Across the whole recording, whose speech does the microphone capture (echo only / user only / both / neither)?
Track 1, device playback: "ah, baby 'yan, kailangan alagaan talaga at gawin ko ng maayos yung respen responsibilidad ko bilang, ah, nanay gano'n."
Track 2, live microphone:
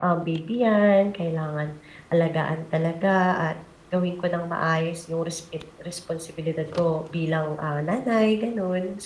echo only